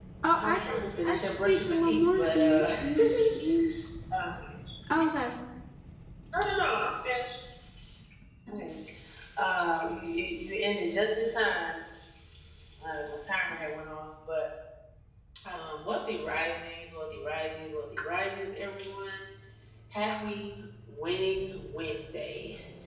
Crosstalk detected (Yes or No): Yes